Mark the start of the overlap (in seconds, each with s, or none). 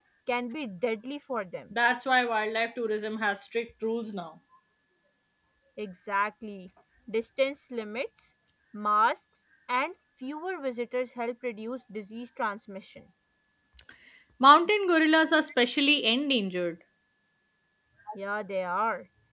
none